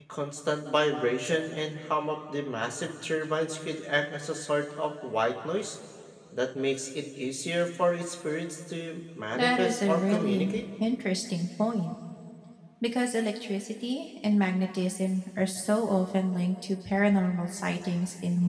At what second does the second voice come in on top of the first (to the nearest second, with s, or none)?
9 s